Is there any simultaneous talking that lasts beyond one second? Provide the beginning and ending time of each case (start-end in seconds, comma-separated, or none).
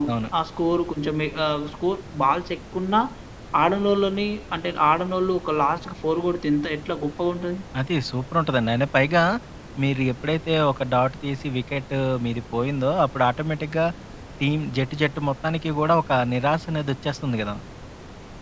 none